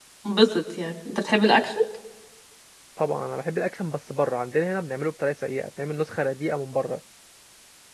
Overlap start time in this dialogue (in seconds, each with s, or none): none